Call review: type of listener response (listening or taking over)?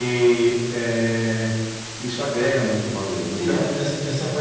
taking over